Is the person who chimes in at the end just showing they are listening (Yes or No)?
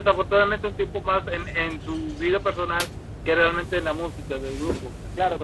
No